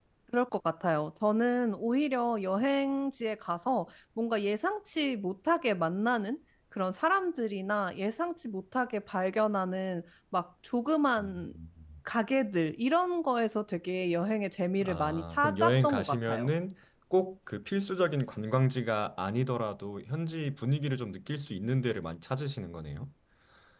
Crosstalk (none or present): present